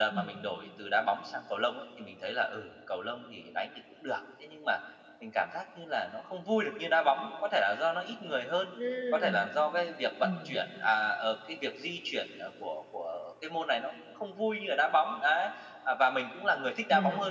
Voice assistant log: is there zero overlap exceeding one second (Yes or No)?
Yes